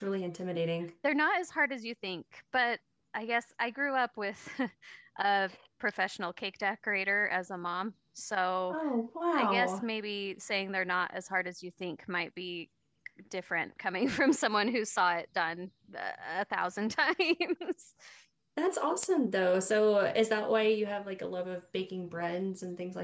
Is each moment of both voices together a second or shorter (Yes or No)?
Yes